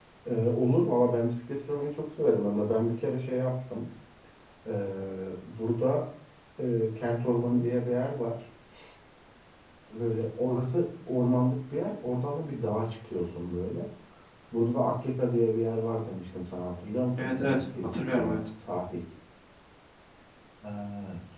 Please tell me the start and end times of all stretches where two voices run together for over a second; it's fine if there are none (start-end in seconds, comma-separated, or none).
17.2-18.4